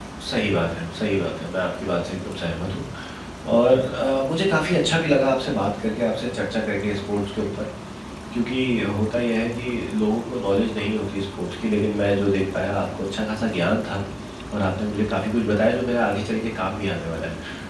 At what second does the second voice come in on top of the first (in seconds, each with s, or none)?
none